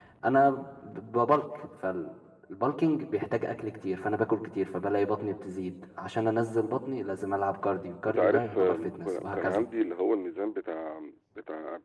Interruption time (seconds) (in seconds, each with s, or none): 8.1 s